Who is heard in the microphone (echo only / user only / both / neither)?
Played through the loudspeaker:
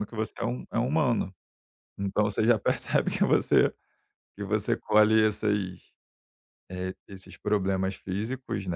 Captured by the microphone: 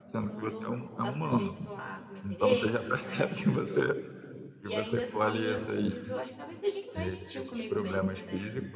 both